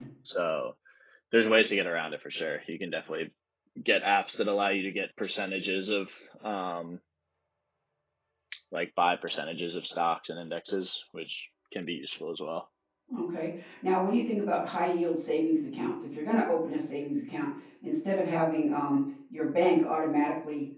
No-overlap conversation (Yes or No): Yes